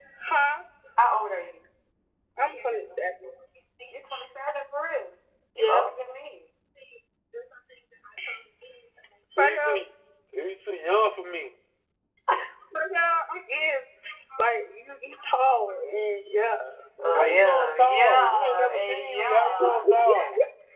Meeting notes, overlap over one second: present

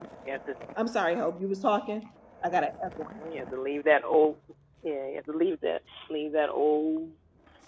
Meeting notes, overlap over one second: none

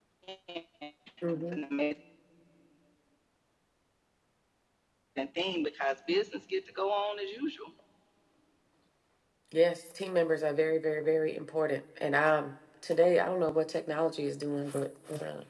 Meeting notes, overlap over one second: none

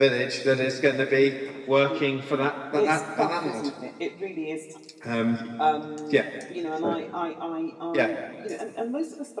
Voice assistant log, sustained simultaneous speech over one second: present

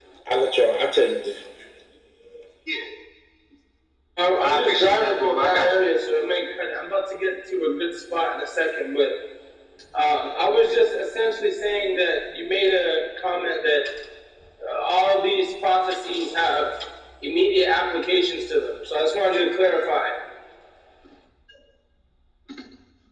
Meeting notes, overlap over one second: present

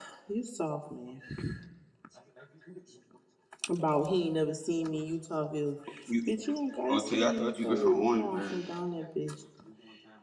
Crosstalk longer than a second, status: present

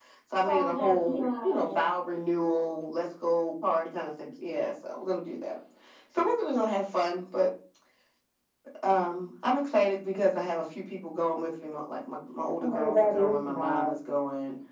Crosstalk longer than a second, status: present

